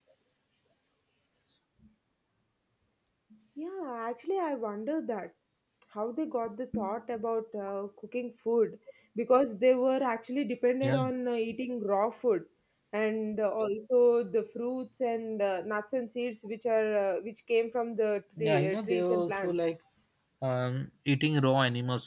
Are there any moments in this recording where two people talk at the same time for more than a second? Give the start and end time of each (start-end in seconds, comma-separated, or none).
18.4-19.7